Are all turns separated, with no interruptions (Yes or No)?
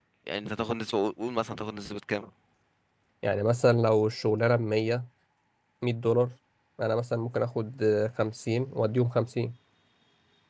Yes